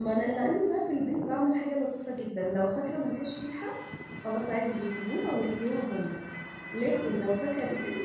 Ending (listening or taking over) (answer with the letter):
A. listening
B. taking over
A